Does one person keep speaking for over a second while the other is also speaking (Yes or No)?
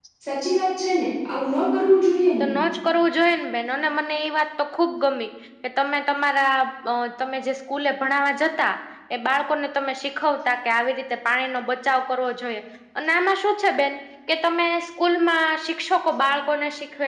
No